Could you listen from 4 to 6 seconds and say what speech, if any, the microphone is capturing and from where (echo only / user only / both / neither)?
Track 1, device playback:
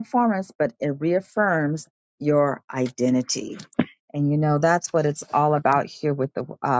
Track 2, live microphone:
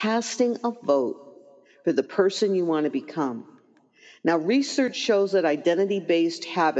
user only